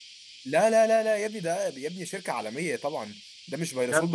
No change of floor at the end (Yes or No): Yes